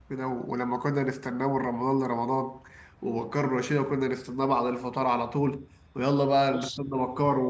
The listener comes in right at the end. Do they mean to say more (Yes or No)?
No